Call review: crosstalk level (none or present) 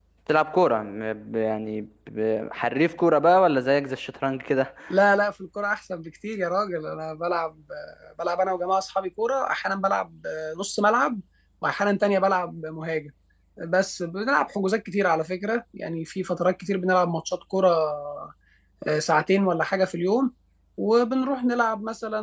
none